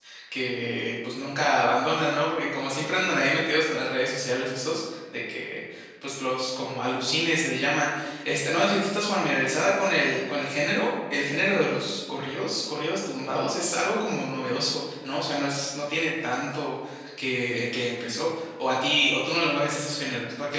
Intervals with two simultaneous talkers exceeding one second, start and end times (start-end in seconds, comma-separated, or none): none